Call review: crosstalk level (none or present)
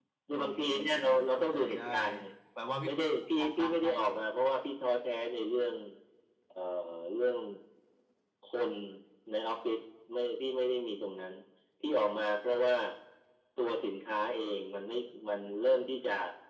present